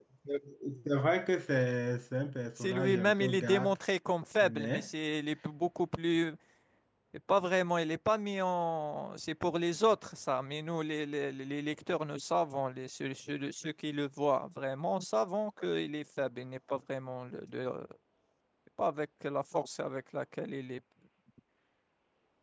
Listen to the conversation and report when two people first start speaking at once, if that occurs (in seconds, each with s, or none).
2.6 s